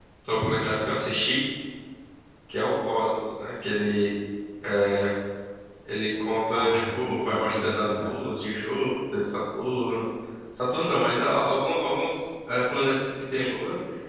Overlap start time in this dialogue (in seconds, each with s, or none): 6.5 s